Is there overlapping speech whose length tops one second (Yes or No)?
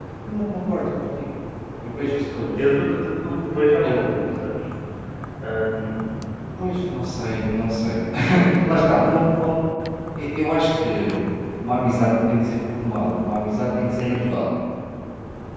No